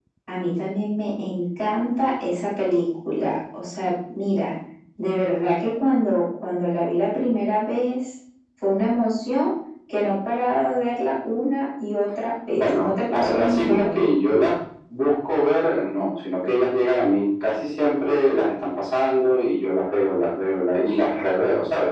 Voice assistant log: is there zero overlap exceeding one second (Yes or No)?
No